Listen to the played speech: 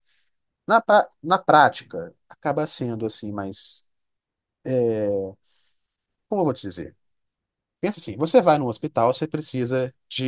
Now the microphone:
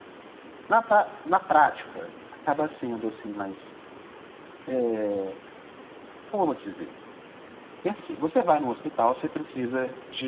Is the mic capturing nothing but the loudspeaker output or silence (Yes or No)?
Yes